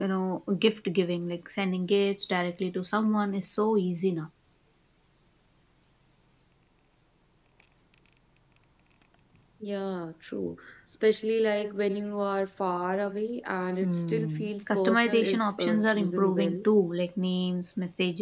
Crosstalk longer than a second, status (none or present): present